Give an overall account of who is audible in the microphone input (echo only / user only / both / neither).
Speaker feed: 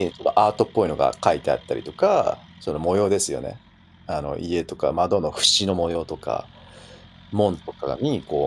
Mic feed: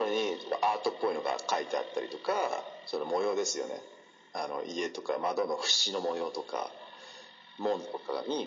echo only